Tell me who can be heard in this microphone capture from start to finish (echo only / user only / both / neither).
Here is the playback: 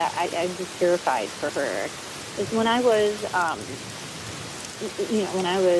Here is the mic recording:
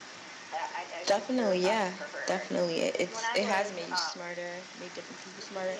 both